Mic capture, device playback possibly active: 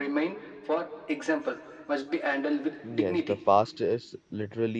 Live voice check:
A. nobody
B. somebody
B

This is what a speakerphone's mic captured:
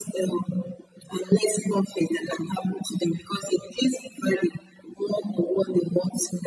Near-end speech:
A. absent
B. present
A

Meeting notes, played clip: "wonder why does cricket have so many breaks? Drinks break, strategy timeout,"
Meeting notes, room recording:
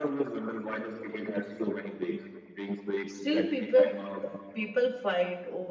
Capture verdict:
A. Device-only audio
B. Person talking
B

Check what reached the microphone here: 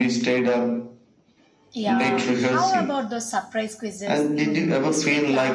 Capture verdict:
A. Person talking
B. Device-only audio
A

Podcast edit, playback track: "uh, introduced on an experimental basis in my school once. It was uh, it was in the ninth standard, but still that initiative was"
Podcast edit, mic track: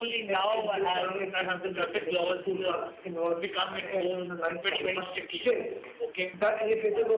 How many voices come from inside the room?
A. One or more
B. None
A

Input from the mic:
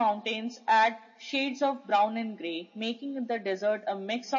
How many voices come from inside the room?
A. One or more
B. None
B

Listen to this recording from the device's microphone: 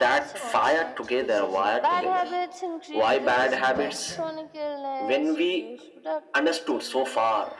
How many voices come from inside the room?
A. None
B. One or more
B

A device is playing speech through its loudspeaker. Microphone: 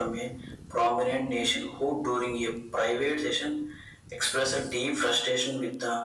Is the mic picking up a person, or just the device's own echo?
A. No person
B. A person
A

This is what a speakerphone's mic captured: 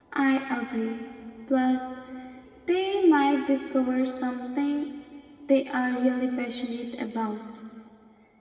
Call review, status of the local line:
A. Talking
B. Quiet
A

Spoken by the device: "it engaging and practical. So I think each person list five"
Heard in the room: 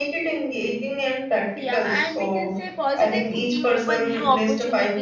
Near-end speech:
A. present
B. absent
A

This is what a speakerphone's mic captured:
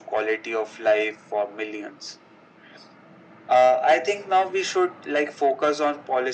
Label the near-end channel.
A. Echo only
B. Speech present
A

